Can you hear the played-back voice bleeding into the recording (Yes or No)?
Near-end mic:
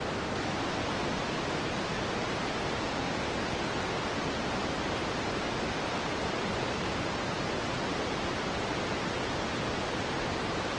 No